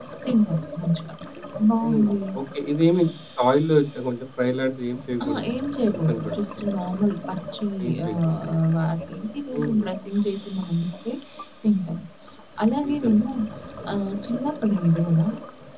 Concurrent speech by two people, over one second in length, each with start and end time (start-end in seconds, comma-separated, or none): none